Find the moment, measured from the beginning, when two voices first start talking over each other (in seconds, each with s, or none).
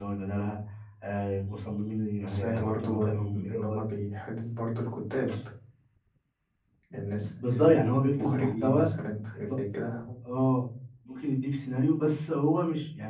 2.3 s